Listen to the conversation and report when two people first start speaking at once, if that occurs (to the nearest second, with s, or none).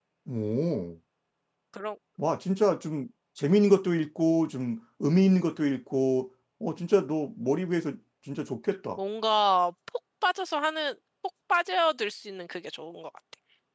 none